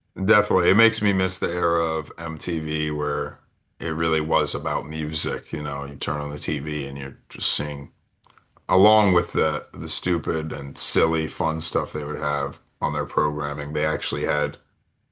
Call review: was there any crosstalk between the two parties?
No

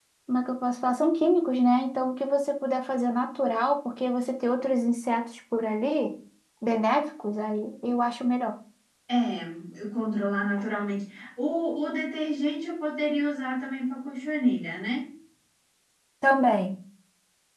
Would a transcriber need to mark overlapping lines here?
No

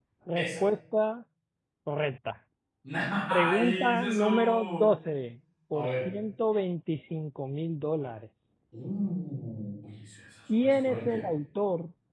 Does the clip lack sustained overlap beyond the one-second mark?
No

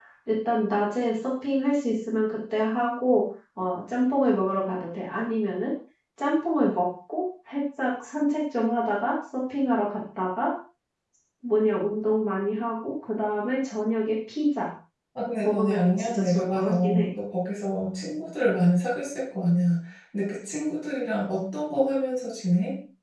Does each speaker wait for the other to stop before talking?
No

